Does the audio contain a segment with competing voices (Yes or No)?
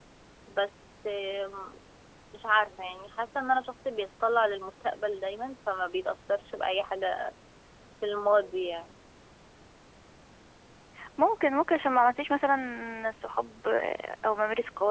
No